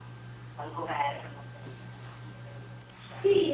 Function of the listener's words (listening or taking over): taking over